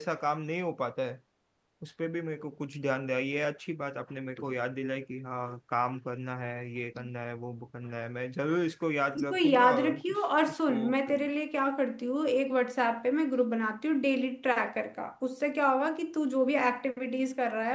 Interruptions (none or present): present